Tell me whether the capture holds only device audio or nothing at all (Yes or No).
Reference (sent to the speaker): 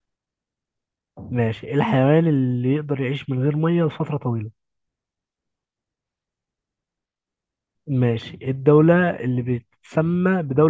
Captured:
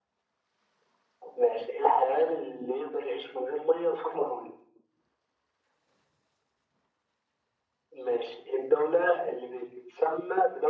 Yes